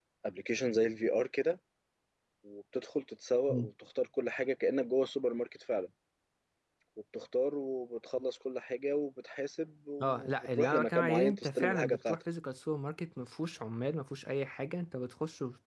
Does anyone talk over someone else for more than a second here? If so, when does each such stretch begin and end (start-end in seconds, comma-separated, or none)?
10.0-12.2